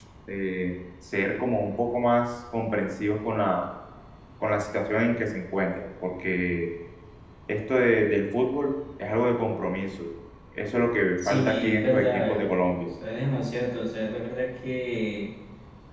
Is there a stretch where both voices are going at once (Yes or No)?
Yes